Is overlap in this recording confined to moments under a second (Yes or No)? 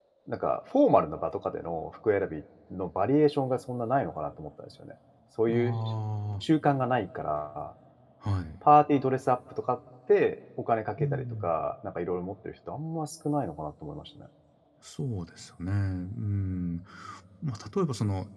Yes